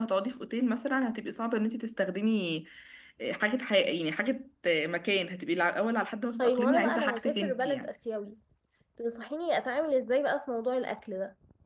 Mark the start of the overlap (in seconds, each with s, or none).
6.4 s